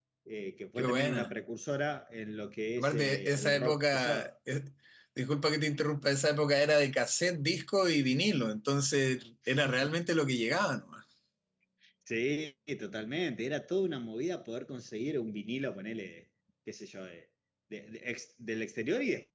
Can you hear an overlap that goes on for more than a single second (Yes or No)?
Yes